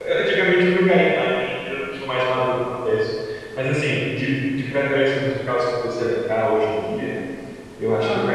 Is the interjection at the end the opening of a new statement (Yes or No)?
No